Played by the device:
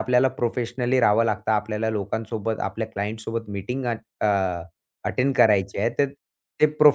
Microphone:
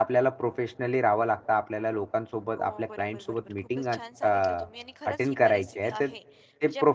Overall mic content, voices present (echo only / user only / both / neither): both